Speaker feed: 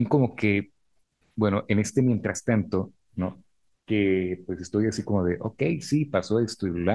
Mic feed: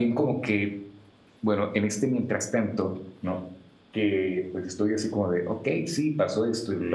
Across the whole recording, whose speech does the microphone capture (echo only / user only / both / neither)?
echo only